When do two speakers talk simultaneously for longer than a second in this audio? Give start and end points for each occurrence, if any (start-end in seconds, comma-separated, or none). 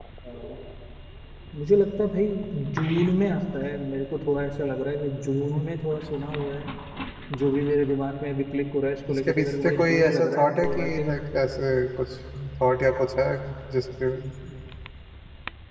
9.1-11.2